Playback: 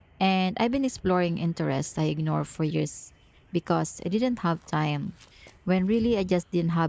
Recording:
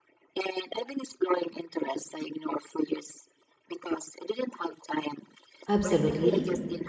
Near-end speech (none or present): present